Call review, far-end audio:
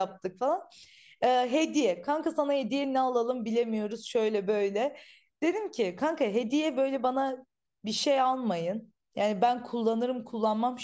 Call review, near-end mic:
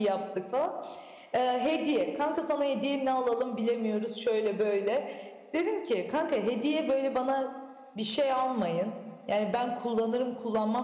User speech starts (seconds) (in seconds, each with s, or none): none